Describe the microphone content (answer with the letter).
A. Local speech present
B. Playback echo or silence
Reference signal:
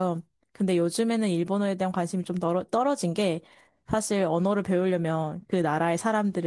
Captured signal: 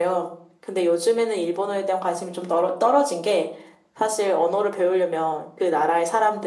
B